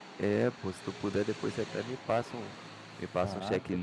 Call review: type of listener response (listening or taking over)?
taking over